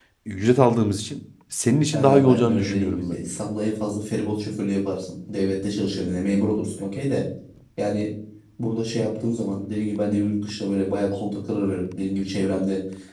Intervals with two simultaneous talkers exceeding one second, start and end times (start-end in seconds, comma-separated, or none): 1.9-3.2